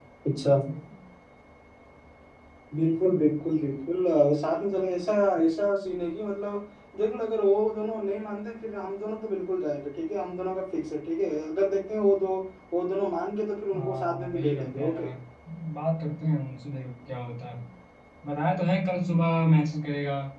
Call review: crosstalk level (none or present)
present